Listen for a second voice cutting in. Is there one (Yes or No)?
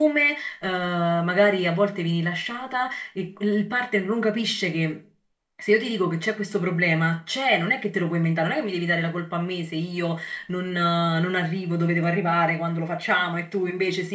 No